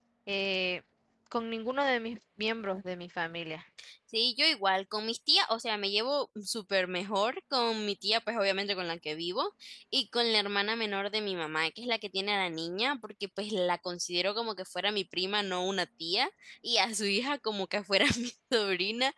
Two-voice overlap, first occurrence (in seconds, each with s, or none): none